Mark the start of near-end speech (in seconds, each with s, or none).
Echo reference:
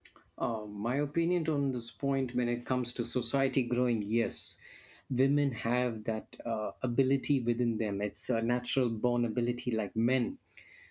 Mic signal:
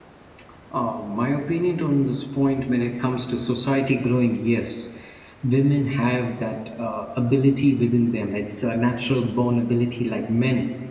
none